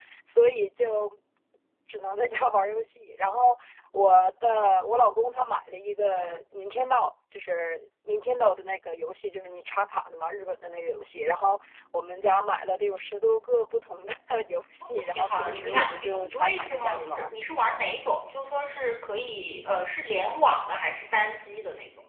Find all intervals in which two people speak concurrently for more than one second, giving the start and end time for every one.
15.0-17.2

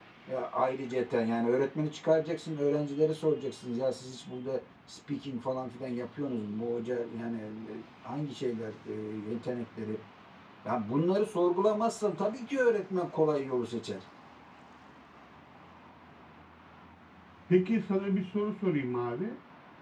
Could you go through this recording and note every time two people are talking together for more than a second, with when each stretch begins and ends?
none

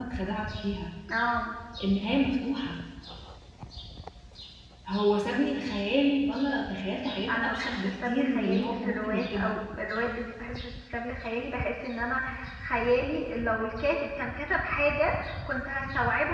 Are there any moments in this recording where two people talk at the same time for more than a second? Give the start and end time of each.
7.3-9.6

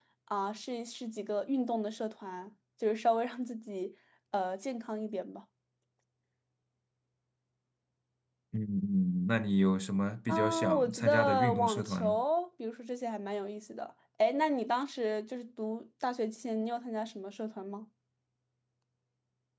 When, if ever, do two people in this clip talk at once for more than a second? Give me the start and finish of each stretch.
10.3-12.2

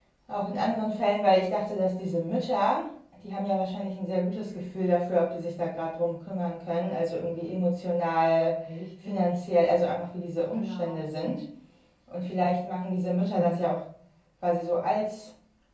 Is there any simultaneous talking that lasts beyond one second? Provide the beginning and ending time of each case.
none

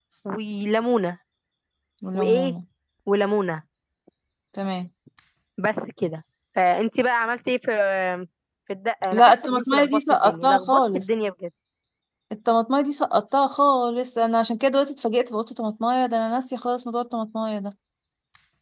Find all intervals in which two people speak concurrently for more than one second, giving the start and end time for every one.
9.1-11.0

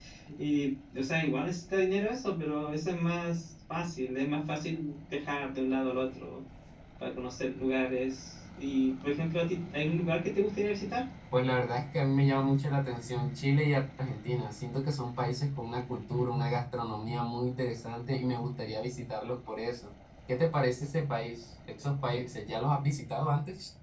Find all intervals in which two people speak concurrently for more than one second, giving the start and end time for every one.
none

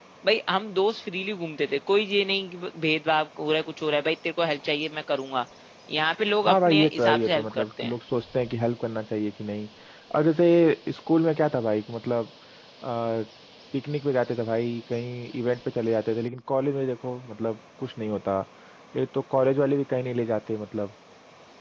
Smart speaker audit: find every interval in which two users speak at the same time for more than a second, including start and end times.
6.5-7.9

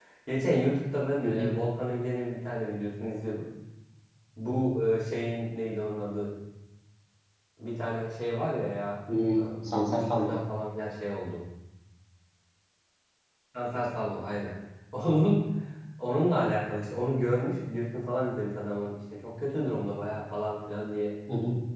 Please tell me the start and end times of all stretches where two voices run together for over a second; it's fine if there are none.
9.1-10.4

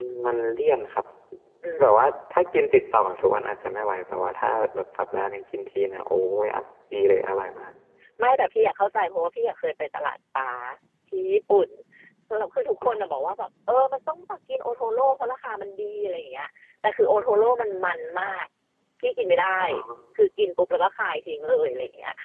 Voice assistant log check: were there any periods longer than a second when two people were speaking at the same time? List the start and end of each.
none

